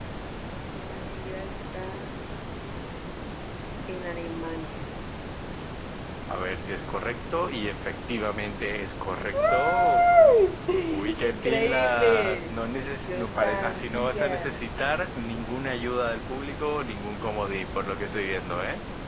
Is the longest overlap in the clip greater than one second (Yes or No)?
Yes